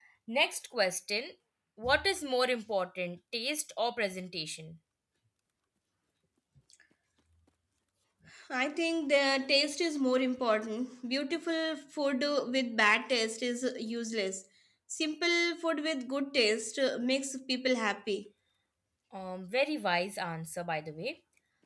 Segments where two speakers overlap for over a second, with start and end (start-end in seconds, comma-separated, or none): none